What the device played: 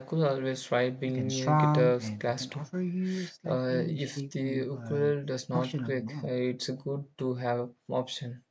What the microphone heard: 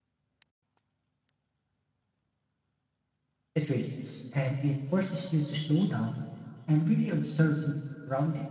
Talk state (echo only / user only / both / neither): user only